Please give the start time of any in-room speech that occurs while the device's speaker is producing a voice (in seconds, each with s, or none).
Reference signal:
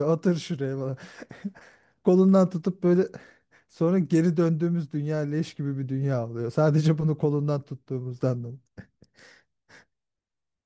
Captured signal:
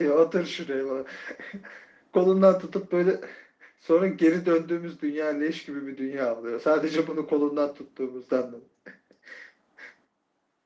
none